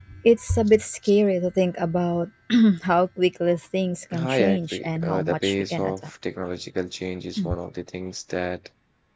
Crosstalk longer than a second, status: present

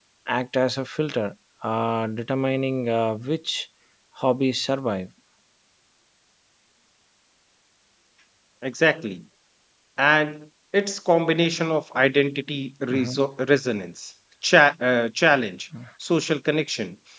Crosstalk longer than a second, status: none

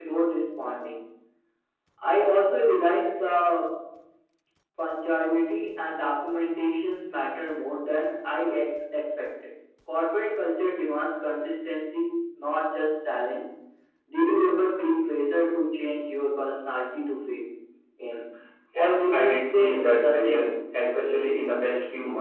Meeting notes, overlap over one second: present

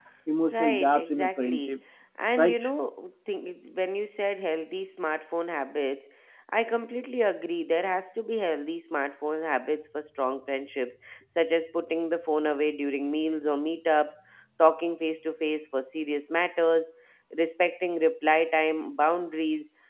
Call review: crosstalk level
present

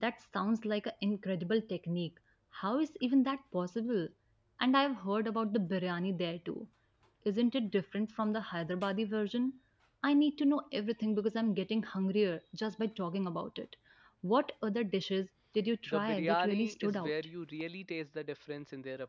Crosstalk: present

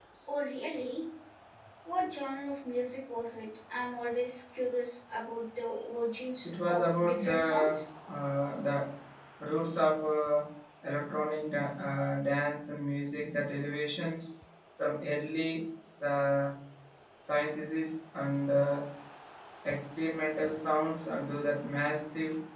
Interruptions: present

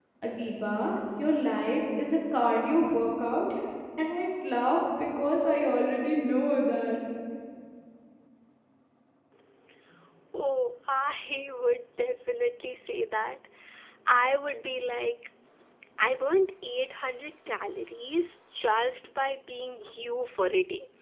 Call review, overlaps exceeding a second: none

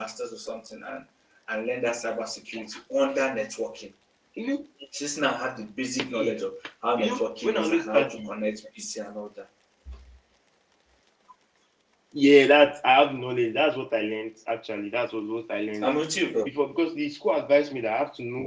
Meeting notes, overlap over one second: present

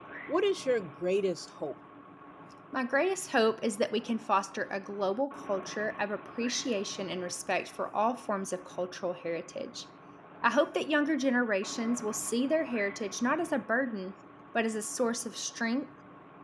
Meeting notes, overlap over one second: none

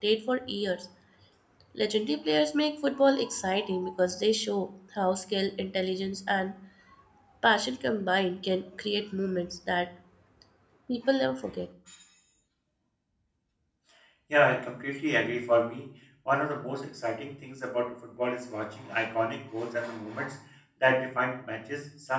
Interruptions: none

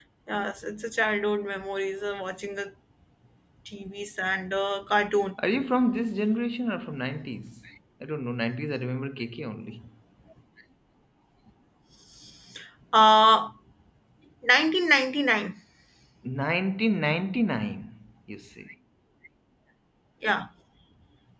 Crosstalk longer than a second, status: none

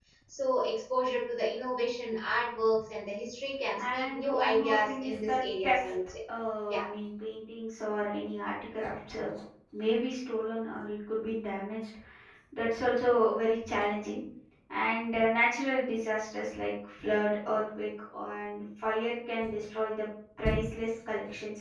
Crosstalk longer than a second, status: present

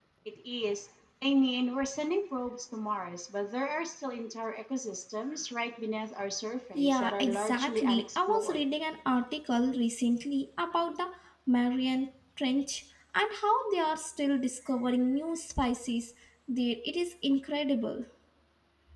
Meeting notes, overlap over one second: present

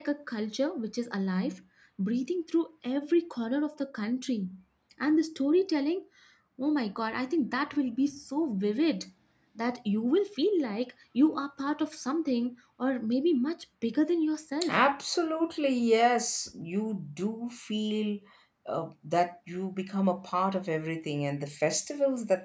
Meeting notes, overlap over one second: none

